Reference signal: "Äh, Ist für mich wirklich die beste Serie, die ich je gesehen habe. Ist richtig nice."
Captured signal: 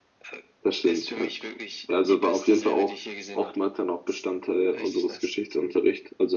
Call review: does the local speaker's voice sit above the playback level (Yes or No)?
Yes